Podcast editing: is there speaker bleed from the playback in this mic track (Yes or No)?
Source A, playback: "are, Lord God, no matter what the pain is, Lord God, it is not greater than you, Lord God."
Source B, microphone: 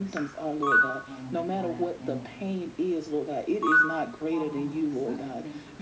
Yes